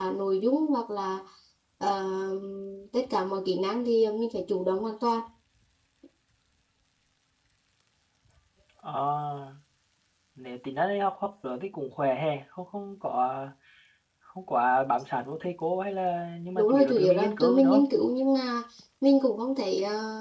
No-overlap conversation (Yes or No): No